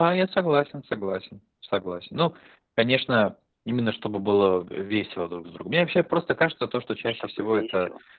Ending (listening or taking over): listening